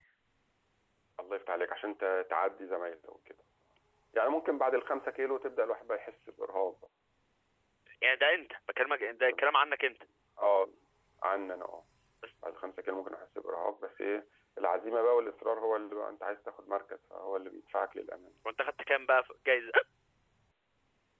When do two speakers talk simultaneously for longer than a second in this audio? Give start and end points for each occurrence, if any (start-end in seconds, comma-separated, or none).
none